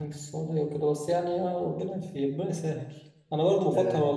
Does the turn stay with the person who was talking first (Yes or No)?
Yes